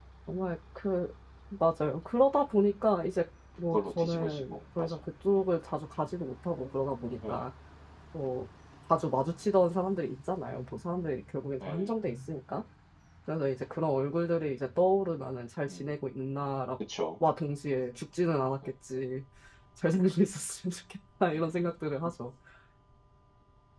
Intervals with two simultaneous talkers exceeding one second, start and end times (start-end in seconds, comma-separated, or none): 3.7-5.0